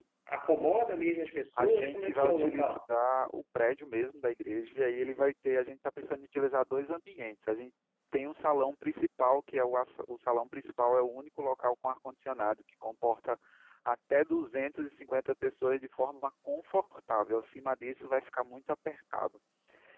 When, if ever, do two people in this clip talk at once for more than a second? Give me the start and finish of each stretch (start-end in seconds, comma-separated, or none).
1.6-2.8